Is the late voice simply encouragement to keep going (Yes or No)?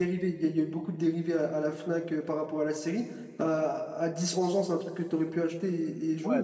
No